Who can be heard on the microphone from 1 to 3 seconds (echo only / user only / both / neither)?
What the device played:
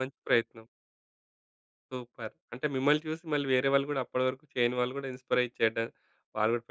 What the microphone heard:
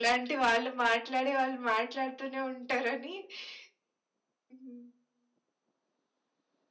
user only